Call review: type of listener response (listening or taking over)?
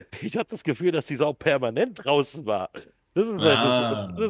listening